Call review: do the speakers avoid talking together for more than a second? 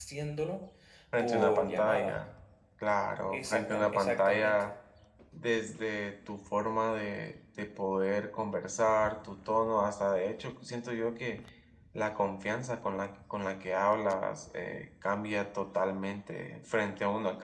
No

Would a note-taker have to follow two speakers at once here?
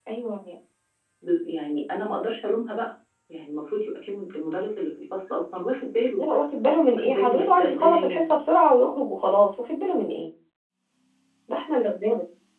Yes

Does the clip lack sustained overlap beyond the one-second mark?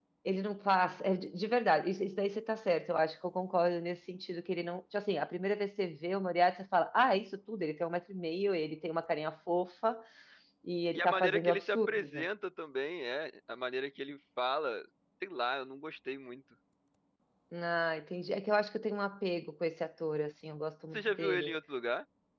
No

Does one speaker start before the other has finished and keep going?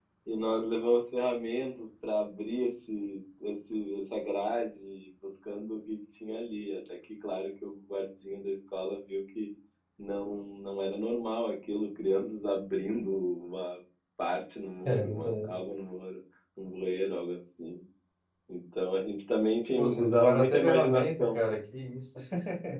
Yes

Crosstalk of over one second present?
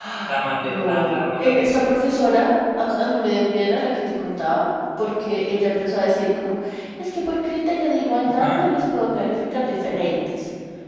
Yes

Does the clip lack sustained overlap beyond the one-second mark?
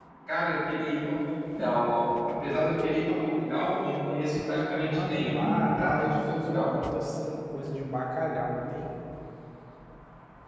No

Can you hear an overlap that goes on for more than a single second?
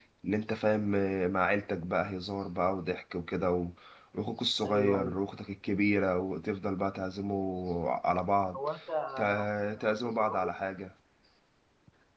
Yes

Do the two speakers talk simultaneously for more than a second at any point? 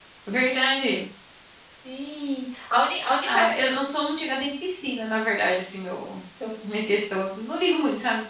No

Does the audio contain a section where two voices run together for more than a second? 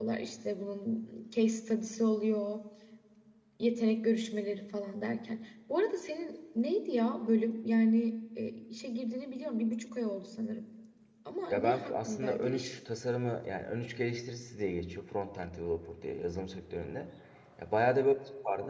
Yes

